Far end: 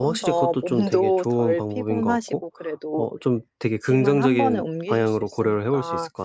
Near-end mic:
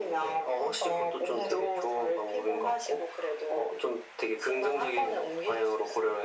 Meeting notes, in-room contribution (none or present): none